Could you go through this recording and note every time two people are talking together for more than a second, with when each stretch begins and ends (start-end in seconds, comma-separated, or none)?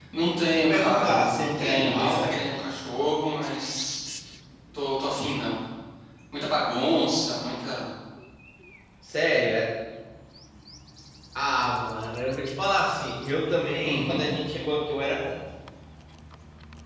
0.5-2.3